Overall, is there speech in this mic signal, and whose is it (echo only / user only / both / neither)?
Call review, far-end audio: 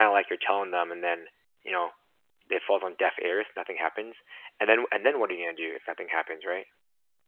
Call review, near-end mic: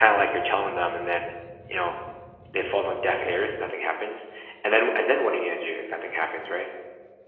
echo only